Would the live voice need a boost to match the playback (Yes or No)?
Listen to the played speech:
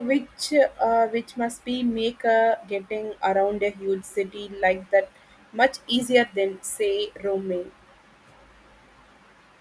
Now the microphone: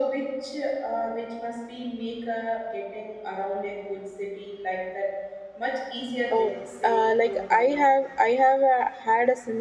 No